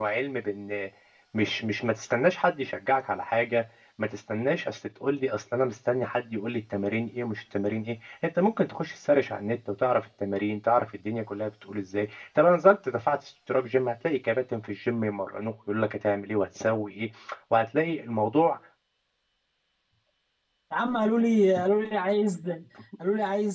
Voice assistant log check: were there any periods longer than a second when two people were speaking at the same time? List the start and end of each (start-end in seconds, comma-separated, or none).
none